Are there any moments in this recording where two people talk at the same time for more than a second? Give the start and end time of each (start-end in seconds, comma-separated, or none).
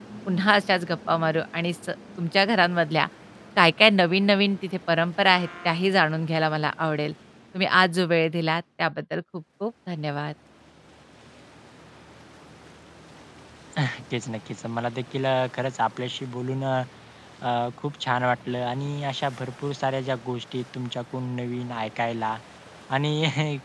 none